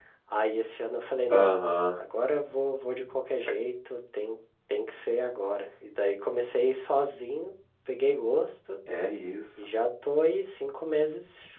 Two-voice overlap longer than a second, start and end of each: none

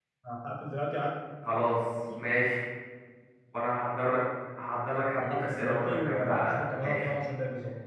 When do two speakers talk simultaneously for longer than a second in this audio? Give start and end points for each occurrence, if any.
5.2-7.1

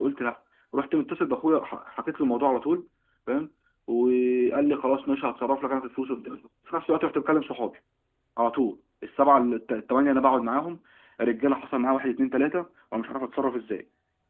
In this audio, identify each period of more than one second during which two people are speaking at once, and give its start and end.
none

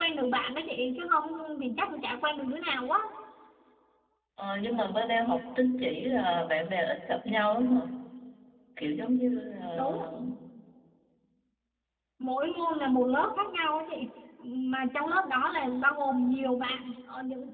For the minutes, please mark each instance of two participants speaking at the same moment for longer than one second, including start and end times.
none

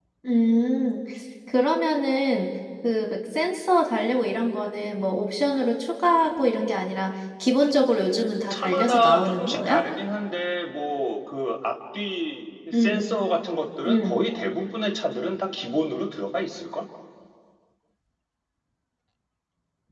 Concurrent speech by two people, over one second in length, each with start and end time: 8.5-9.8

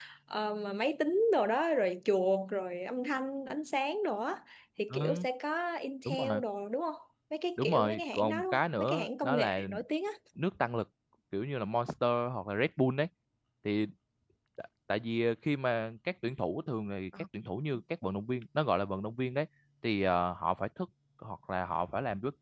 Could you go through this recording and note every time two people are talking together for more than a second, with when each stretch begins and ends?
7.6-9.6

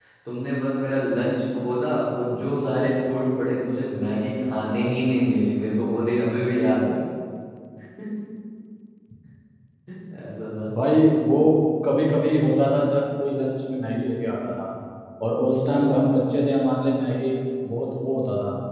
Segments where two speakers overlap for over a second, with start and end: none

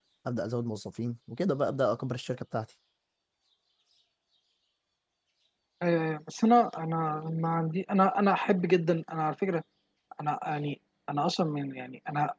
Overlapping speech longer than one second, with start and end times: none

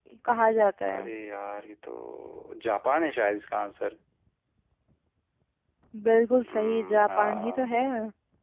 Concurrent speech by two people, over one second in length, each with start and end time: 6.5-7.7

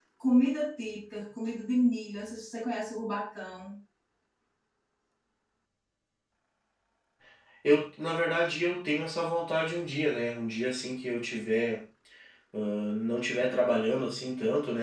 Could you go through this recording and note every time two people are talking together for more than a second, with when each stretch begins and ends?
none

